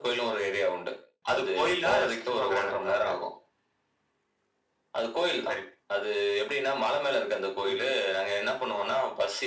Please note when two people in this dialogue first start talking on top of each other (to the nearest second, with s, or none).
1 s